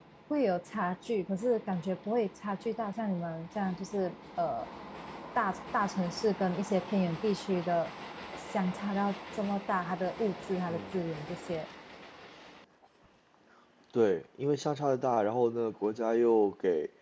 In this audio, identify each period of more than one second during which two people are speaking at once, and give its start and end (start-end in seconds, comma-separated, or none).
none